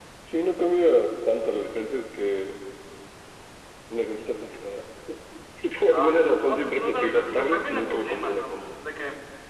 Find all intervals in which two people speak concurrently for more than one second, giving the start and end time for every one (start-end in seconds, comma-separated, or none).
5.9-8.7